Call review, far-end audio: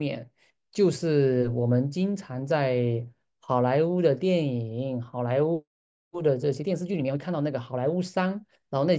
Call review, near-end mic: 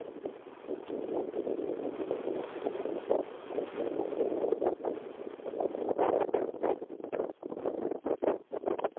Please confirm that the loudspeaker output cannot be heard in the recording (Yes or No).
Yes